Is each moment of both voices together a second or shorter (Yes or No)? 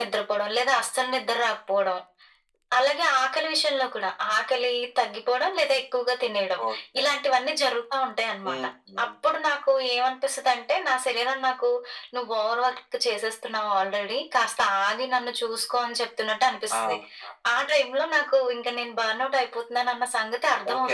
Yes